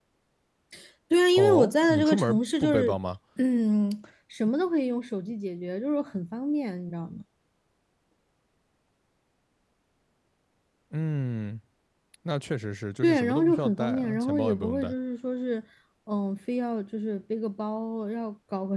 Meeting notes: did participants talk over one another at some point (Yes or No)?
Yes